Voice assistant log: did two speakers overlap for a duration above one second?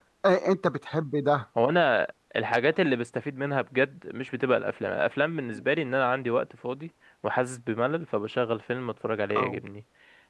No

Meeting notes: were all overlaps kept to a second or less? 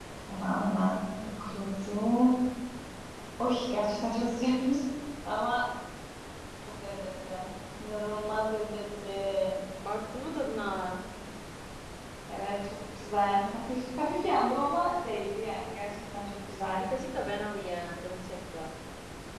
Yes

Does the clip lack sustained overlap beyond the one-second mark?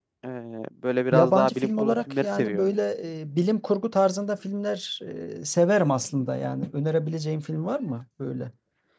No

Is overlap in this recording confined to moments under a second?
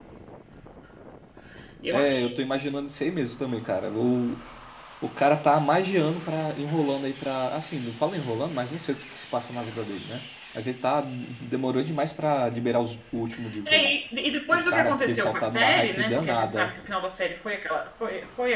No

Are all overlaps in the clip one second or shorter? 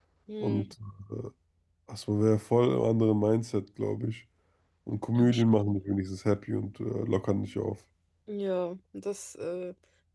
Yes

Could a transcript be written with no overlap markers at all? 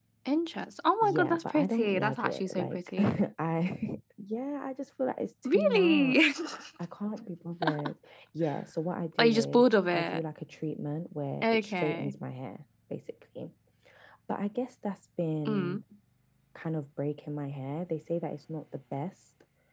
No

